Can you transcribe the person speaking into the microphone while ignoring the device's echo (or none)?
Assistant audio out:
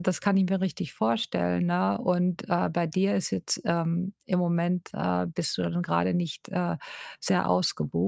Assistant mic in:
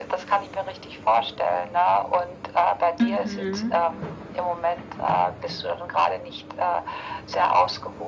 Mhm.